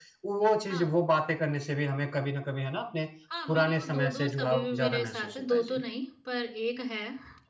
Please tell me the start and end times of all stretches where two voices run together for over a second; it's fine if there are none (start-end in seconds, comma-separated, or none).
3.5-5.8